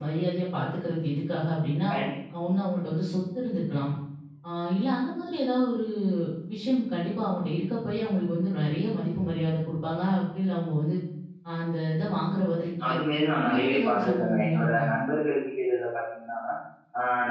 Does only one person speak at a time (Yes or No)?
No